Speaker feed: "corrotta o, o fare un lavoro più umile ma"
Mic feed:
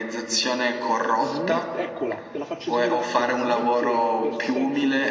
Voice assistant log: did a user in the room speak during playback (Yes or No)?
Yes